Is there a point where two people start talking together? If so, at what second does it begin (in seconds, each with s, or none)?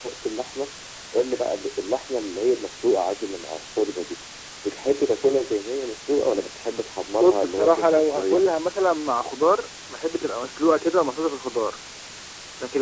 7.2 s